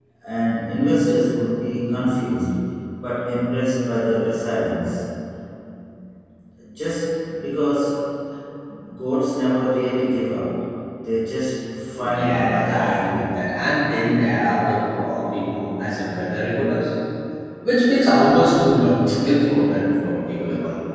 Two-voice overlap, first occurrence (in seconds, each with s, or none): 12.0 s